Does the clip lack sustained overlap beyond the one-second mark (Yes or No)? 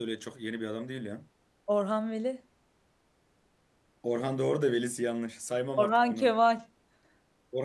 Yes